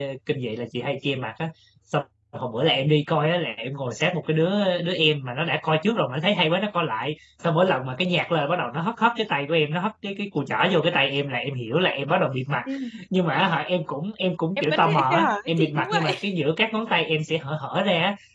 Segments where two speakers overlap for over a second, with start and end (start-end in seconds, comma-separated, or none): 14.6-16.1